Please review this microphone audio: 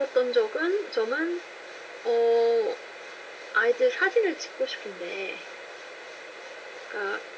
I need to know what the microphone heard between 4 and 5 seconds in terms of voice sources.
echo only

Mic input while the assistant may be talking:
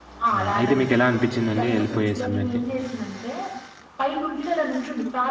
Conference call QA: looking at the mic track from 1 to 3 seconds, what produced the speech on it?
both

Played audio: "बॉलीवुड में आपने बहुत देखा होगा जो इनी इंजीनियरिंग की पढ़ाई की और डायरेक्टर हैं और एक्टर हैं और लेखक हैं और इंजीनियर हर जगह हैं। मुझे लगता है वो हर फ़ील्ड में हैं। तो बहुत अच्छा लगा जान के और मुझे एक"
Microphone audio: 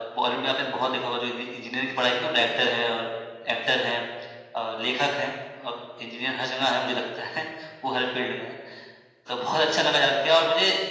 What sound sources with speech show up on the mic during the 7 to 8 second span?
echo only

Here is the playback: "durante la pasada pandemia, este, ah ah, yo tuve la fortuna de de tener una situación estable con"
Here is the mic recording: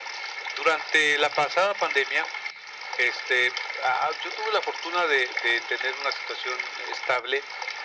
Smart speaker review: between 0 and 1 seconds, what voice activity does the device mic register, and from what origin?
echo only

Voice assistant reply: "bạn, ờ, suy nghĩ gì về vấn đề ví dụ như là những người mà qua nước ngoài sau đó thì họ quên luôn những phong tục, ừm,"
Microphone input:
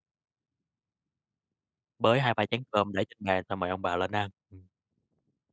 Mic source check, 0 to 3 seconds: user only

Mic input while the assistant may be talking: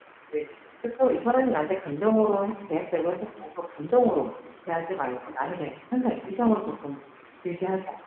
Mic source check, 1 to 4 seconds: user only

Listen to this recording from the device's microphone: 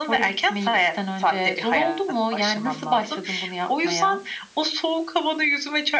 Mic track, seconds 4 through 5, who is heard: echo only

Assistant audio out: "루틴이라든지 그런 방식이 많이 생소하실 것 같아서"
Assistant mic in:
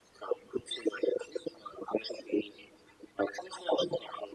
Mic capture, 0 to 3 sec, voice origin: echo only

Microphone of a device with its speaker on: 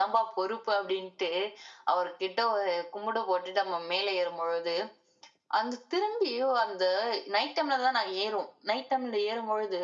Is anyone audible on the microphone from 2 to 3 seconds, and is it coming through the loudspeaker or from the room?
user only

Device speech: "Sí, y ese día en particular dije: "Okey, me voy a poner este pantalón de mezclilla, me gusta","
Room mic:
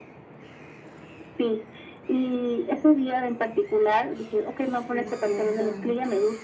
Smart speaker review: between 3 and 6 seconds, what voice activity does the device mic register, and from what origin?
both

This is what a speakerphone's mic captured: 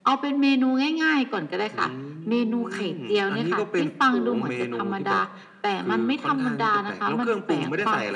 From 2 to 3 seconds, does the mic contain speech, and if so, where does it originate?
echo only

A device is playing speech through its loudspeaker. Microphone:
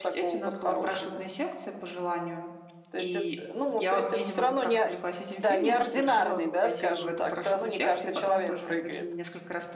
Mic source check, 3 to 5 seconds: both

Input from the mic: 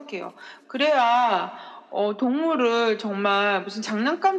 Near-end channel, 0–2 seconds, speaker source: echo only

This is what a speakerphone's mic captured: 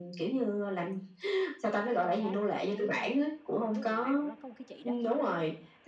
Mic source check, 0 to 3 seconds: both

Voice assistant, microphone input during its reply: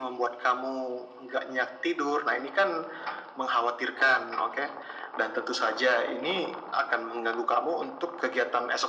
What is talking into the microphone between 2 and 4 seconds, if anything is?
echo only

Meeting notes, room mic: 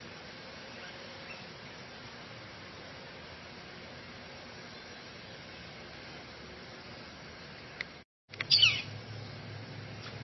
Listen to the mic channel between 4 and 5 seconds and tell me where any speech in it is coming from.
neither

